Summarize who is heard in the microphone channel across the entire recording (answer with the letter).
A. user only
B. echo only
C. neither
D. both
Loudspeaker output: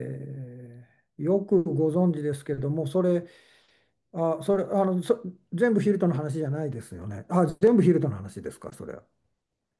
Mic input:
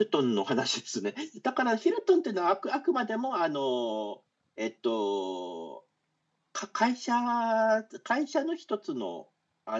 A